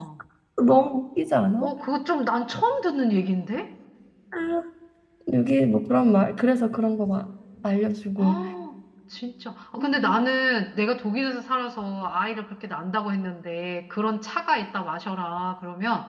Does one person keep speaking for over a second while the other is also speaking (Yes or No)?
No